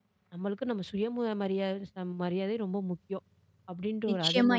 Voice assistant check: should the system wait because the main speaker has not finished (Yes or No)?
No